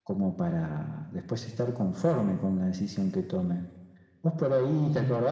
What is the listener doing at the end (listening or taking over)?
listening